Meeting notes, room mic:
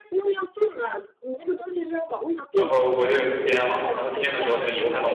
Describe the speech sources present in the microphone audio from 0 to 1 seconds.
echo only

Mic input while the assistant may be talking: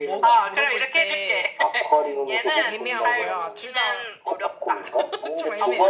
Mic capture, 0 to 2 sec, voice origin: both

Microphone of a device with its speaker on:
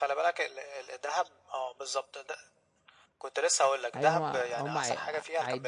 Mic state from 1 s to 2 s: echo only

